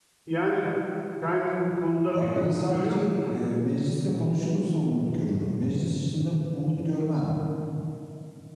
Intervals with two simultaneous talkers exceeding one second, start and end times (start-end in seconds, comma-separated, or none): 2.1-3.4